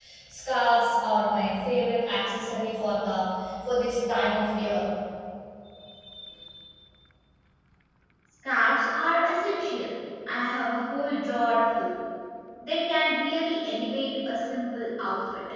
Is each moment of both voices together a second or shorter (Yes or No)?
Yes